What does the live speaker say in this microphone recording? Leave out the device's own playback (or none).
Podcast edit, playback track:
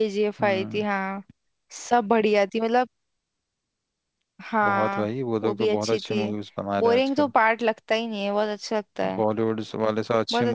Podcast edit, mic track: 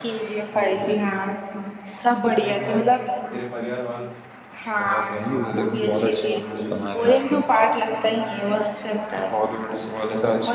कि देख मैं तेरे परिवार वालों